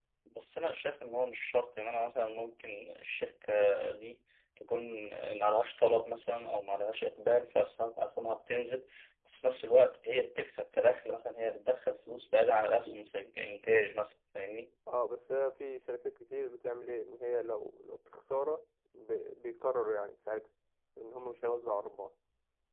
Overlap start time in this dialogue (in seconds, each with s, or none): none